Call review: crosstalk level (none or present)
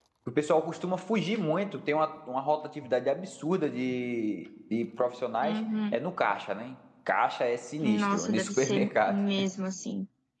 present